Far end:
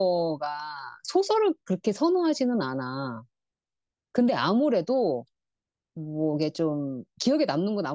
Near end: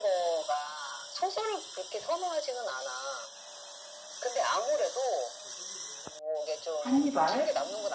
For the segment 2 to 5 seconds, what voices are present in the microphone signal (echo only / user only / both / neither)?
echo only